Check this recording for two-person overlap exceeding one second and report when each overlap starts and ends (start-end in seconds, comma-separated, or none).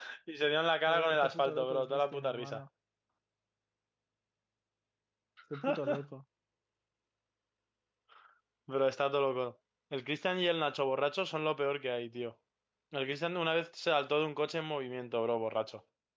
0.9-2.6